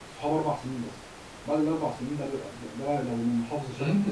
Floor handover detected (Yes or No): Yes